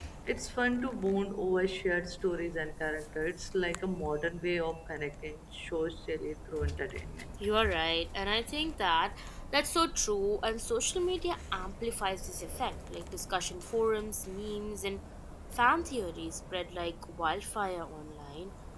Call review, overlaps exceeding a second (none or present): none